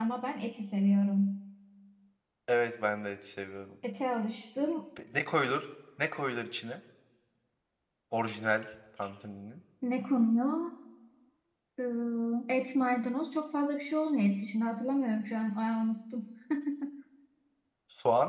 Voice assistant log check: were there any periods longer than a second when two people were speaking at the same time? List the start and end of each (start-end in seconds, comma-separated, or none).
none